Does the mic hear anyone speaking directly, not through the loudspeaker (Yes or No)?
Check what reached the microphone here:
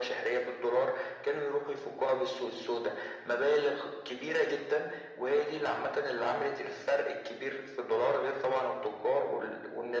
No